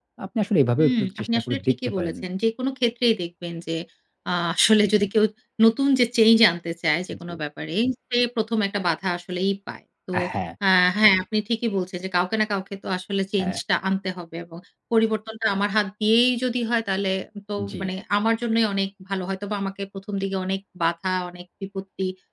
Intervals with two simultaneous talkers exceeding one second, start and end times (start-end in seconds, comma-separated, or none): 0.8-2.1